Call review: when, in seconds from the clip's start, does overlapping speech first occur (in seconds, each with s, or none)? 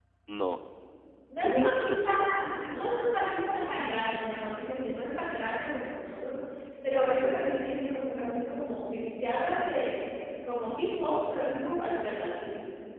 1.4 s